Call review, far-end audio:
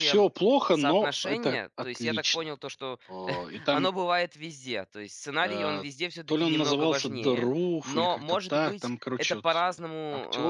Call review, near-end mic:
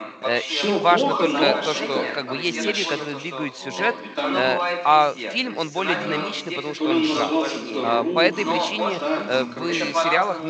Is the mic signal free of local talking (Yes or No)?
No